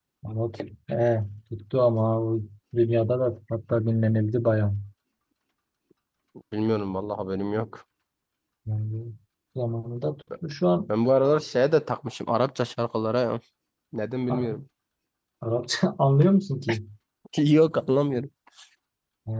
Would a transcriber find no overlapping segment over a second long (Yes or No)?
Yes